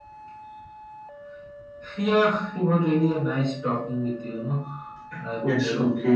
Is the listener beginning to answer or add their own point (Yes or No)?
Yes